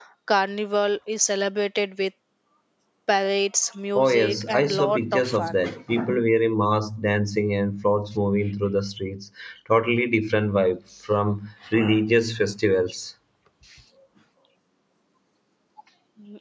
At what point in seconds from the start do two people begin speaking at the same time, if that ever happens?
4.0 s

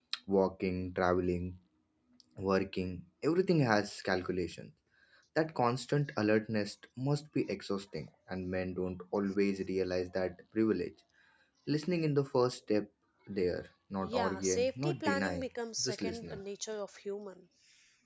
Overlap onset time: 14.0 s

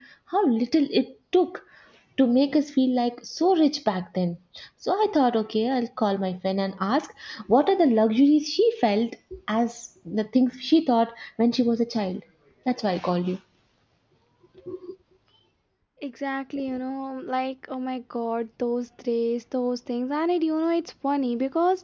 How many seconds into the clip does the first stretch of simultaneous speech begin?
none

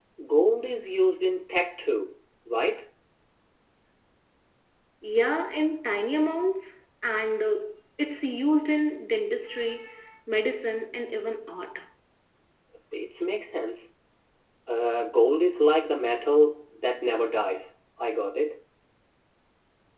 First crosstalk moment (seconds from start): none

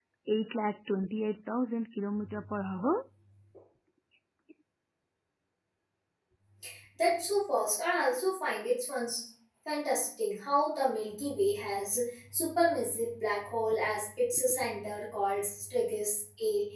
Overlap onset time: none

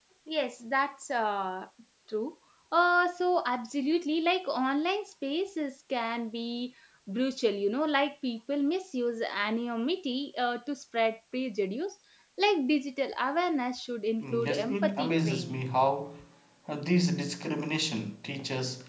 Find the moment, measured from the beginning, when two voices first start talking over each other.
14.2 s

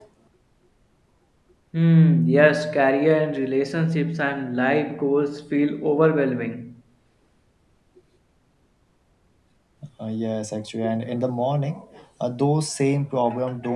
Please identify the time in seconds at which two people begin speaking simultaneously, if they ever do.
none

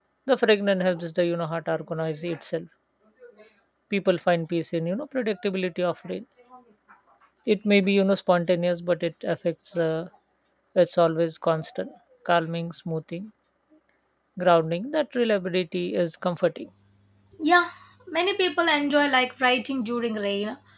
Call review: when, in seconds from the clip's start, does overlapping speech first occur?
none

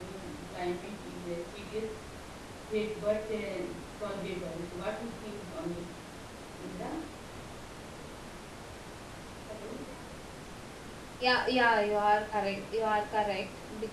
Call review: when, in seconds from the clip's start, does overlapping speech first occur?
none

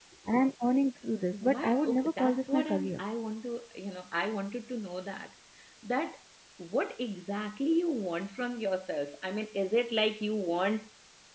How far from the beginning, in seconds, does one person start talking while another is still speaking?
1.3 s

